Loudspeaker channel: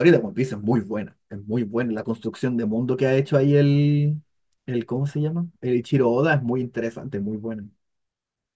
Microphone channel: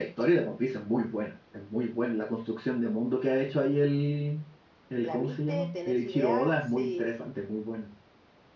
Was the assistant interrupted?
Yes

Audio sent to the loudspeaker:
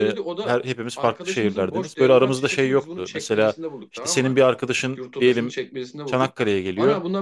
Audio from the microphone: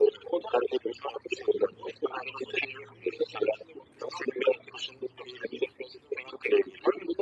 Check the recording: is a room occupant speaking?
No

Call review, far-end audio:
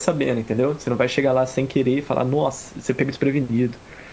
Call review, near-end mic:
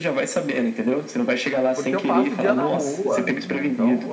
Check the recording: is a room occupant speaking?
Yes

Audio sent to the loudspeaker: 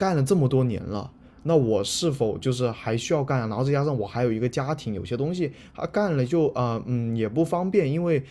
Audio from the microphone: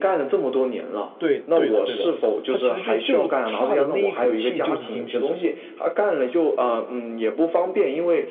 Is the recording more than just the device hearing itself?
Yes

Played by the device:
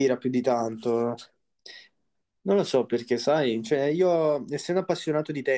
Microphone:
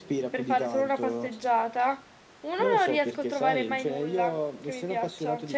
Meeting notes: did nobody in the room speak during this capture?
No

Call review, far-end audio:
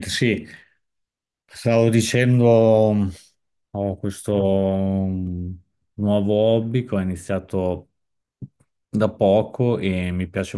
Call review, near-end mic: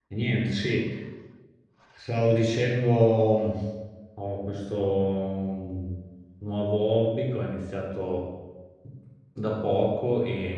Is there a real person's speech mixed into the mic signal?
No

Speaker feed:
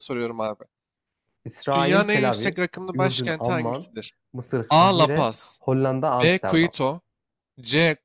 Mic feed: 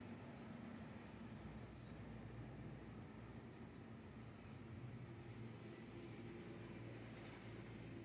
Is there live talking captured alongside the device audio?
No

